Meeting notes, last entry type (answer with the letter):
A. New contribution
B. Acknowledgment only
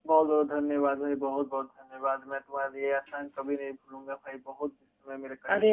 A